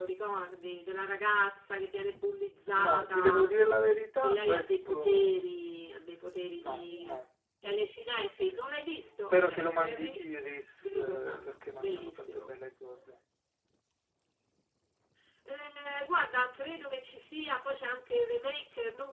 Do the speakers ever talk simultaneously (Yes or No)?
Yes